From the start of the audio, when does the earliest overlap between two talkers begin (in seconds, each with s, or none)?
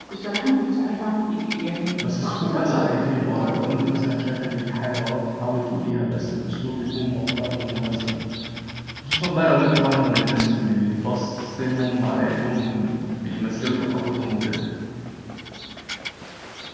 2.0 s